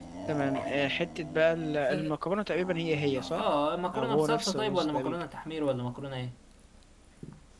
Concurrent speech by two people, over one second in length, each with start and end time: 3.9-5.2

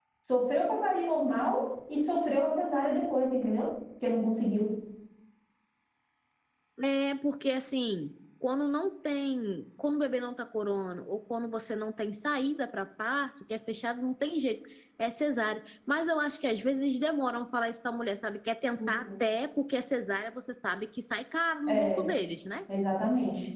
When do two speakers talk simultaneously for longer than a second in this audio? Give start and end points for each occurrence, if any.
none

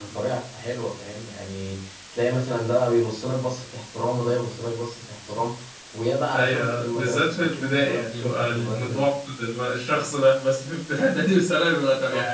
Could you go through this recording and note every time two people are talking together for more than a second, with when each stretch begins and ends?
6.3-9.1

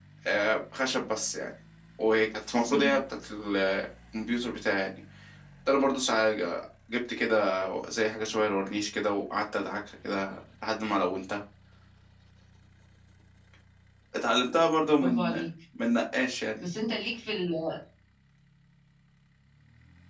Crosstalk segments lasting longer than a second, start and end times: none

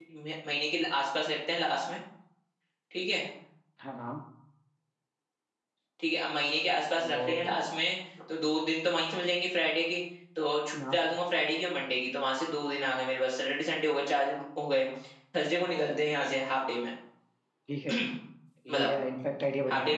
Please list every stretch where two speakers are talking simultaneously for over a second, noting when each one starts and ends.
none

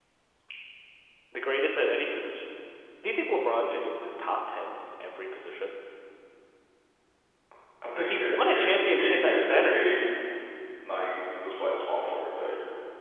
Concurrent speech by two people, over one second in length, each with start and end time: 8.0-9.8

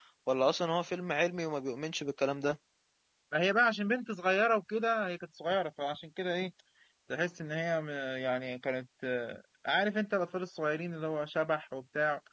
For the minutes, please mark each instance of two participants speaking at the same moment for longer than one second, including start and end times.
none

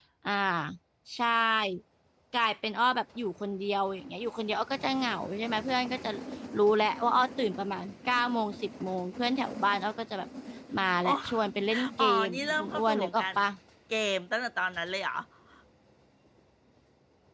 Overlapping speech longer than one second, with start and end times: 12.0-13.2

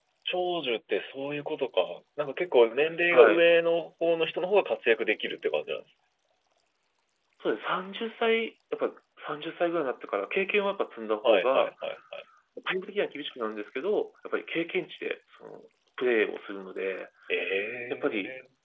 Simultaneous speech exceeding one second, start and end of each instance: none

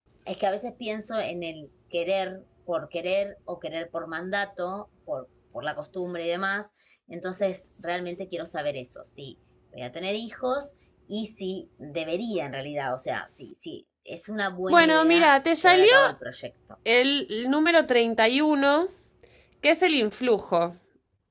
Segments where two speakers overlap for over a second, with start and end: 14.7-15.9

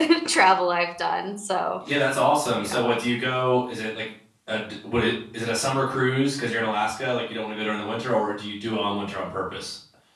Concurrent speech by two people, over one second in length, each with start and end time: none

